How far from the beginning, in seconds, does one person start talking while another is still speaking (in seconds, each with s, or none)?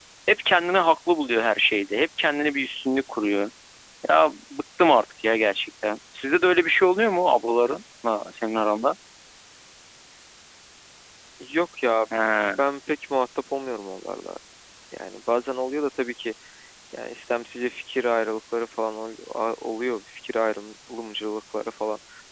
none